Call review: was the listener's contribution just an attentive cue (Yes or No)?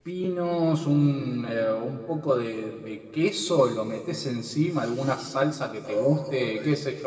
Yes